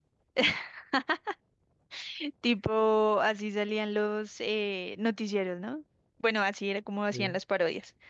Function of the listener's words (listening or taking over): listening